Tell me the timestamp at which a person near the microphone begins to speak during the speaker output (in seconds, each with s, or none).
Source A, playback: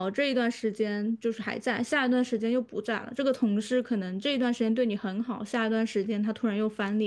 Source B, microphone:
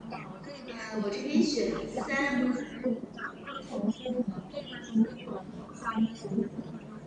0.7 s